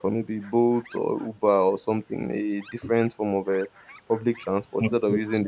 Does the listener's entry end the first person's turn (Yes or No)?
No